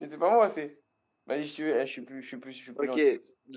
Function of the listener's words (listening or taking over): taking over